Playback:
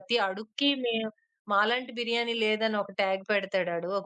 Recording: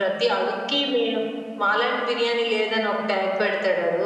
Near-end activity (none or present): none